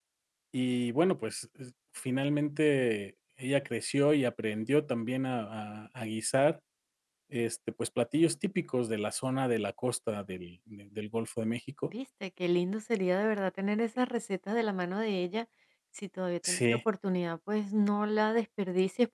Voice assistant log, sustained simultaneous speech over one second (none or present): none